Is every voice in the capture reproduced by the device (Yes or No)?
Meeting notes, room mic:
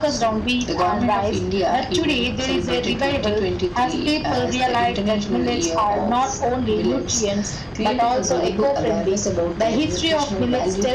Yes